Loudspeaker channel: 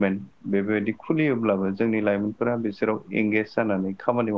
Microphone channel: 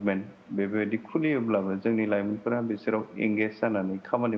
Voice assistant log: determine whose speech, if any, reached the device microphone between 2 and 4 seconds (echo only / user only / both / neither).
echo only